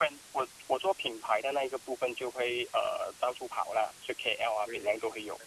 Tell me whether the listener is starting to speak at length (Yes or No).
Yes